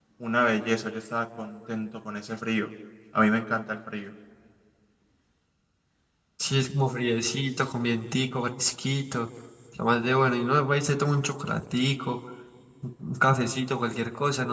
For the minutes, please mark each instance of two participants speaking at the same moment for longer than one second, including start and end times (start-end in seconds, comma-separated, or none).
none